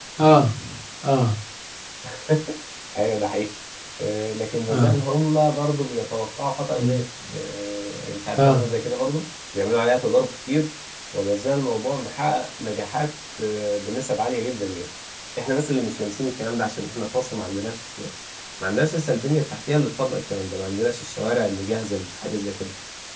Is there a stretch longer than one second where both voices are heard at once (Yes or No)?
No